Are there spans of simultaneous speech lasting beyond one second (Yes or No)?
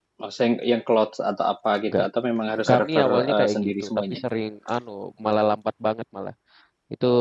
Yes